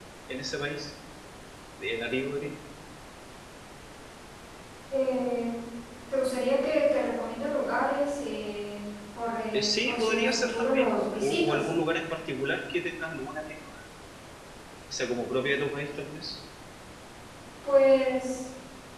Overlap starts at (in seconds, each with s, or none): 9.5 s